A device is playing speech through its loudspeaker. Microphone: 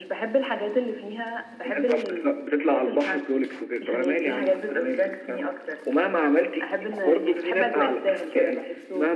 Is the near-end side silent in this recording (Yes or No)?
Yes